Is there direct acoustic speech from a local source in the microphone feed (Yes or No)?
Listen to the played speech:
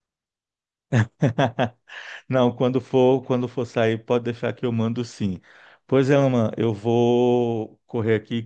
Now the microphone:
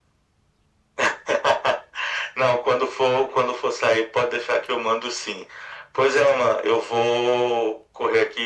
No